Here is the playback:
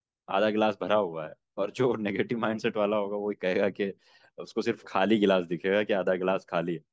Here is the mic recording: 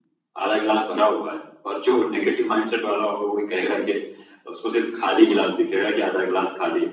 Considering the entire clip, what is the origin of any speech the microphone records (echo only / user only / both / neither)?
echo only